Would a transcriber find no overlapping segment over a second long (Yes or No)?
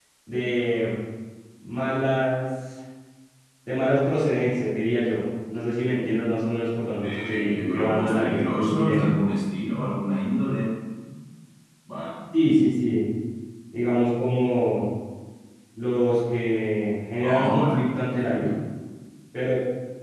No